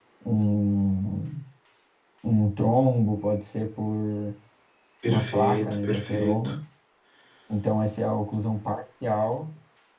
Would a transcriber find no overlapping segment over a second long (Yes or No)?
No